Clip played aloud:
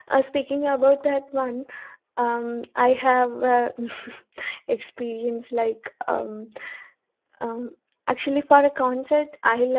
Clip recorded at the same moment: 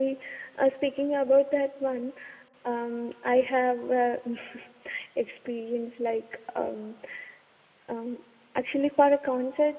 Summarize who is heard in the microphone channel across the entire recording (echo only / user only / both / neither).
echo only